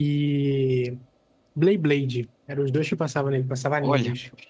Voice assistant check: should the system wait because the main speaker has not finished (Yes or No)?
No